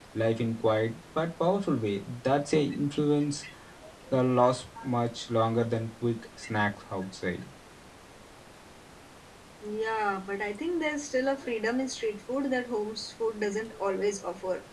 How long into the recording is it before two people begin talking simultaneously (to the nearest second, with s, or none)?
none